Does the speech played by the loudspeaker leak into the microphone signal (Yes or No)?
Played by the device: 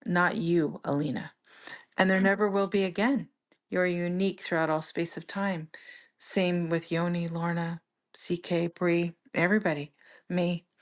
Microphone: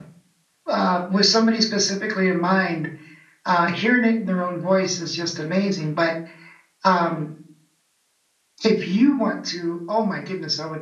No